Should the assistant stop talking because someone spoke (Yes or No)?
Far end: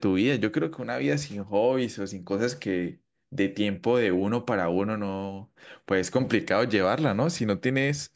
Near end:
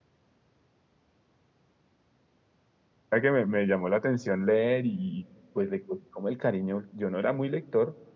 Yes